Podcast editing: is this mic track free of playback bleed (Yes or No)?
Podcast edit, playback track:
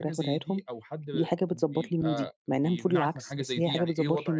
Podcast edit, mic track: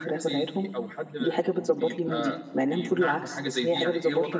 No